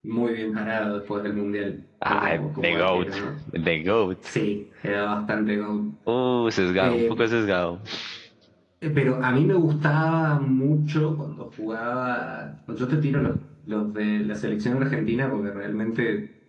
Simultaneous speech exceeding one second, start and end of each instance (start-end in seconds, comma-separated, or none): 2.1-3.3